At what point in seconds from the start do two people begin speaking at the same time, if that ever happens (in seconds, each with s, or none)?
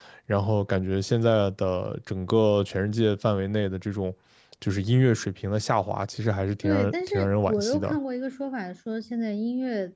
6.6 s